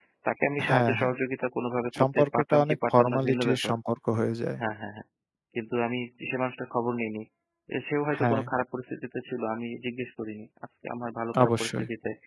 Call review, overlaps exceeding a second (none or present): present